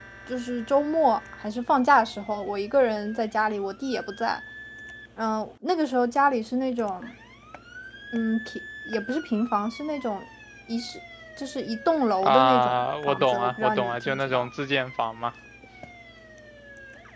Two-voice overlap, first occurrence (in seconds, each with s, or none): 12.2 s